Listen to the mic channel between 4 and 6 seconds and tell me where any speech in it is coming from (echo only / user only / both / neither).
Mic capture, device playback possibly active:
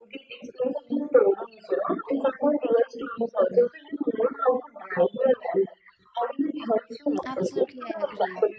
echo only